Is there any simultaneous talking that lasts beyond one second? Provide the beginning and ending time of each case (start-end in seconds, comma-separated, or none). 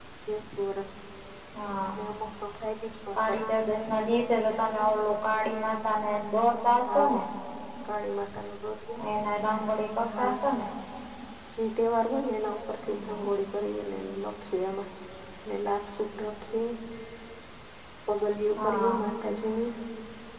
none